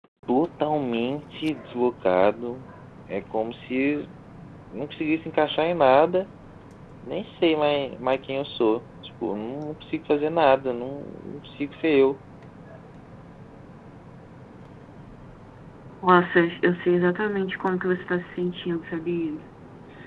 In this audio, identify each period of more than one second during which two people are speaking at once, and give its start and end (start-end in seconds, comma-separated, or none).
none